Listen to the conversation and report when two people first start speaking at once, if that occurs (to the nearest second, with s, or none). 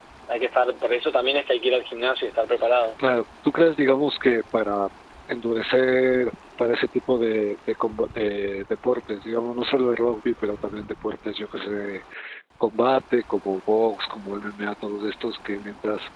none